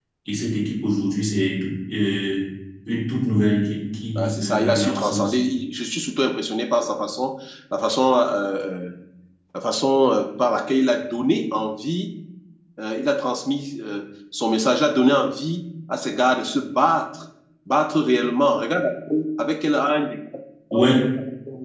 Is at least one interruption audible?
Yes, from 4.2 s

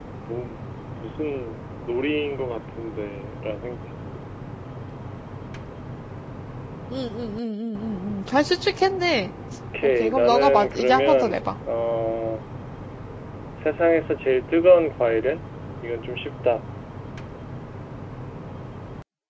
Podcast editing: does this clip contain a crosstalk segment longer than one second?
Yes, from 10.0 s

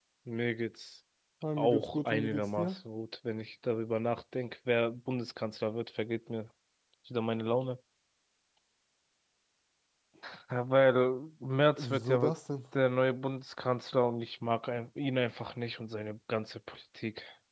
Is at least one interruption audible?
Yes, from 1.6 s

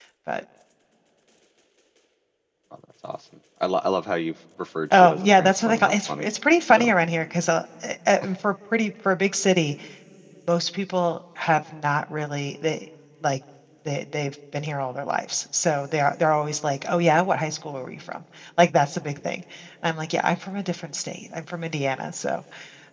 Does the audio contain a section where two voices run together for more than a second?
Yes, from 4.9 s

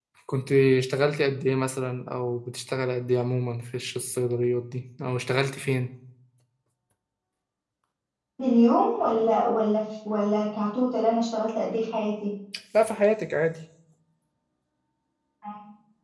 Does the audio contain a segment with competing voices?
No

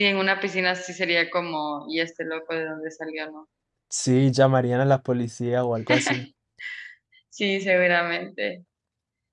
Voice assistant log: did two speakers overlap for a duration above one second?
No

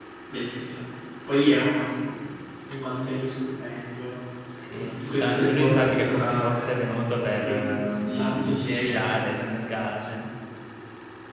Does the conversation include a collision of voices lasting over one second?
Yes, from 4.5 s

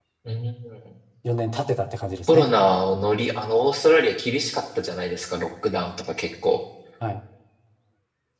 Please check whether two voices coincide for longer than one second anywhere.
No

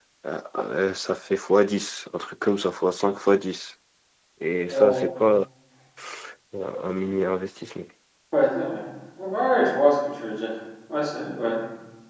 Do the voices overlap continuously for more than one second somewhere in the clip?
No

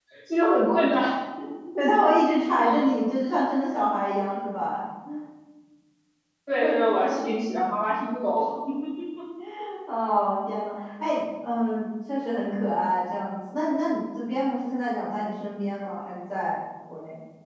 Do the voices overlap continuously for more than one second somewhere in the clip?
No

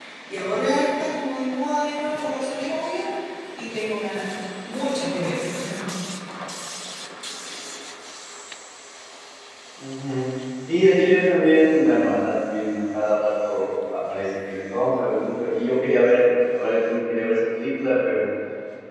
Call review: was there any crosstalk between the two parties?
No

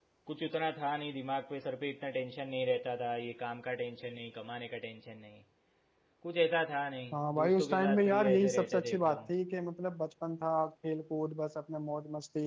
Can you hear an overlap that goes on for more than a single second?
Yes, from 7.1 s

